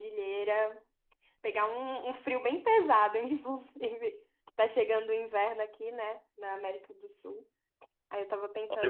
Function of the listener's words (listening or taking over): listening